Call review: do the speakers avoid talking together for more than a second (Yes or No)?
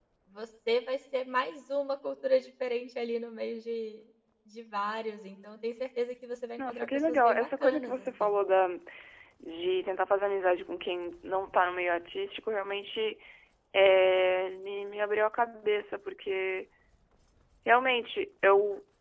No